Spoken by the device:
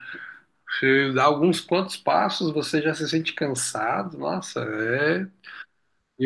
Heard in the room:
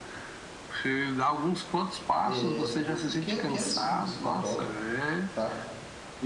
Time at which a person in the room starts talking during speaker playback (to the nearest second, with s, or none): 2 s